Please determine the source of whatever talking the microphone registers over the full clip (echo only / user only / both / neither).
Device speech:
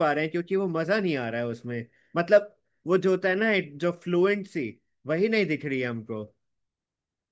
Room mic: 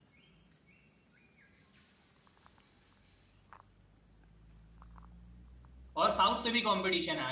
user only